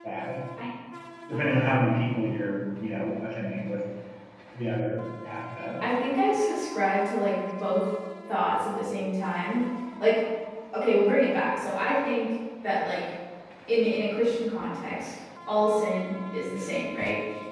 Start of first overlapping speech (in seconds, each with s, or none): none